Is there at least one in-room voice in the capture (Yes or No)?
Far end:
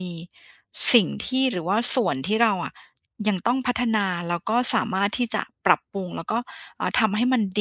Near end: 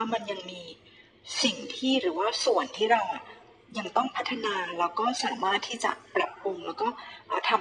No